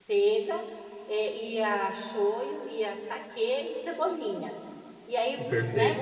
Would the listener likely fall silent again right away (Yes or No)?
Yes